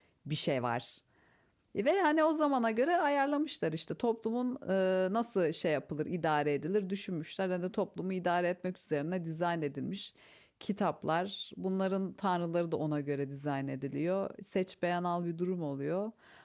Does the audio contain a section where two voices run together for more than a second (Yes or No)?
No